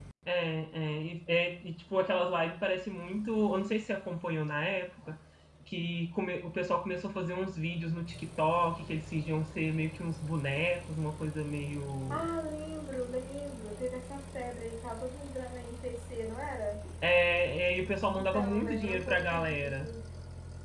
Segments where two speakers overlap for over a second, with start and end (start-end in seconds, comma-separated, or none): 18.2-19.8